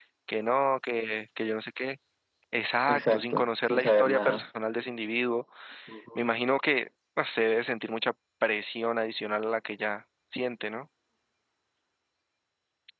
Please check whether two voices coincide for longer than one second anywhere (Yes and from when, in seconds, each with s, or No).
Yes, from 2.9 s